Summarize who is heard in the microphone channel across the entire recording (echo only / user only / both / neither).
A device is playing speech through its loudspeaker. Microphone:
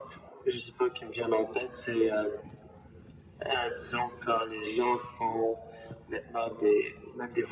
echo only